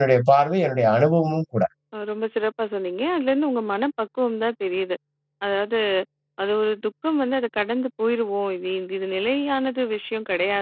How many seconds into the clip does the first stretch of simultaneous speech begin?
none

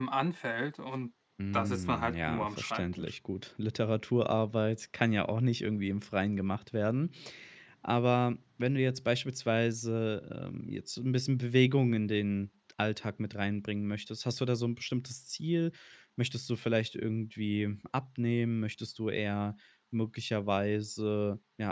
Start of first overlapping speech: 1.5 s

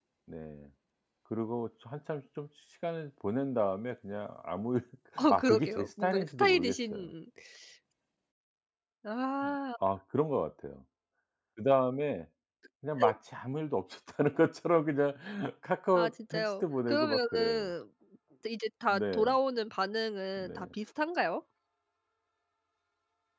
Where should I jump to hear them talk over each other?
5.3 s

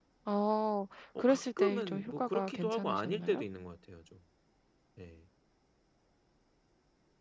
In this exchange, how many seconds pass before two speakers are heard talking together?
1.2 s

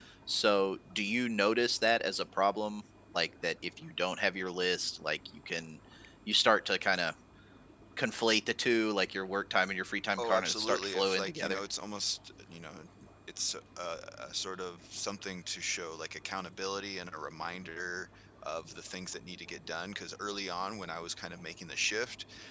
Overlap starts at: 10.2 s

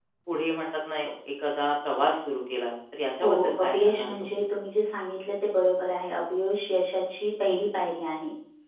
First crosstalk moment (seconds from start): 3.2 s

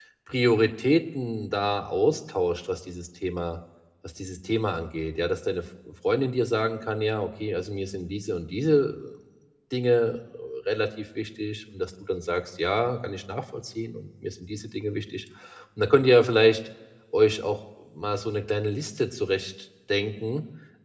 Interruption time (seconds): none

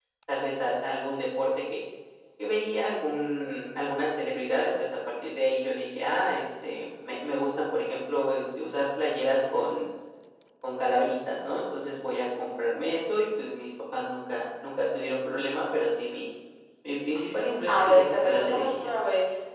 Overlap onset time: 17.7 s

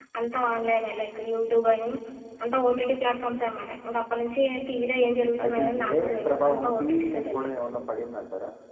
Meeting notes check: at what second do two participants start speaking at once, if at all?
5.4 s

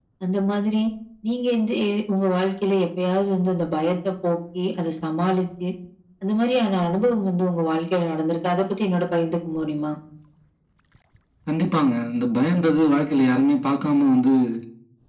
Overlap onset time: none

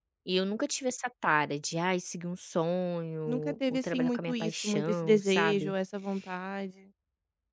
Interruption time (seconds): 3.3 s

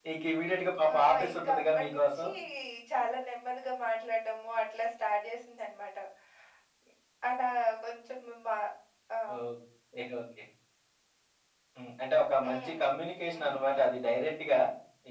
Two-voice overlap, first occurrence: 1.0 s

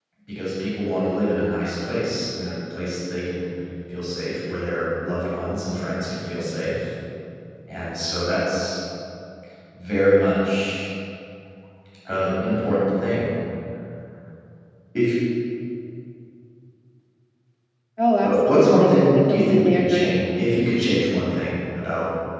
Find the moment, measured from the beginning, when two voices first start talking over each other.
18.2 s

